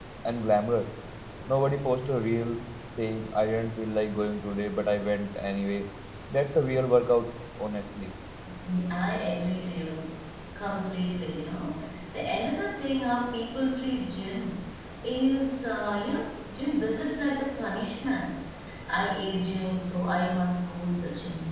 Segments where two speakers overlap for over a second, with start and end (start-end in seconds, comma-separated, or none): none